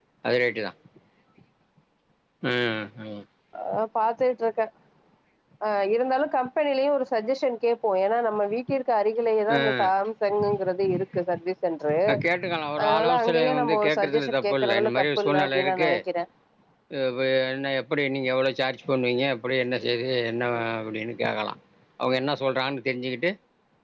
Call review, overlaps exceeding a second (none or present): present